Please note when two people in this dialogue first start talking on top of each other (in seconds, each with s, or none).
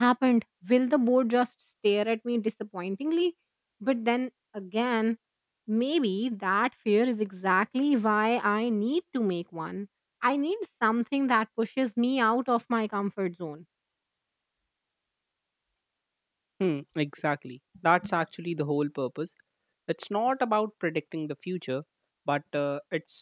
none